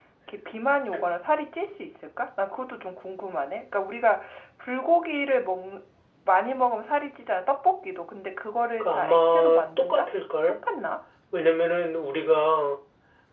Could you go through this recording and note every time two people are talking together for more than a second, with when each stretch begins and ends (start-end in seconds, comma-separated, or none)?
8.8-10.1